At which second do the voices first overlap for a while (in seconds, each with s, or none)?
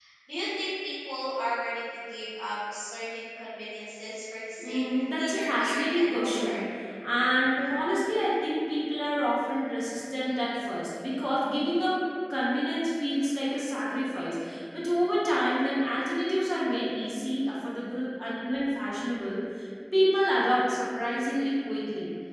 4.6 s